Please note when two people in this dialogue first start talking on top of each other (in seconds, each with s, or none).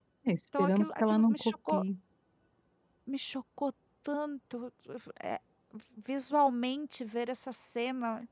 0.6 s